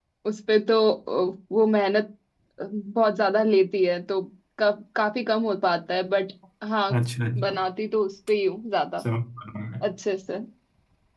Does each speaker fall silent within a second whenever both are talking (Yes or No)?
Yes